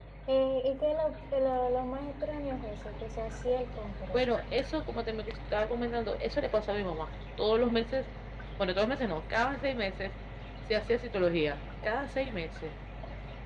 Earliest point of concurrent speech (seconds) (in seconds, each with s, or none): none